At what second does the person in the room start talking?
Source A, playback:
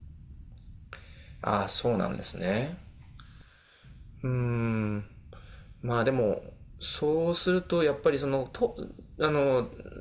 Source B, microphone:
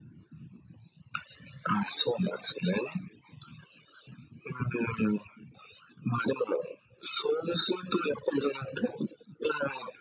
none

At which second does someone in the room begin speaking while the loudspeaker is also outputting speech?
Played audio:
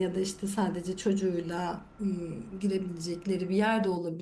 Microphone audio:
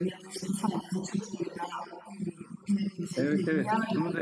3 s

